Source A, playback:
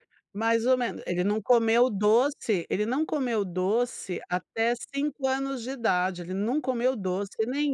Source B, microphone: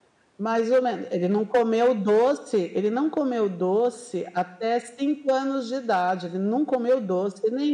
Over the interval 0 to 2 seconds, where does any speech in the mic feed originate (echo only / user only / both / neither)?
echo only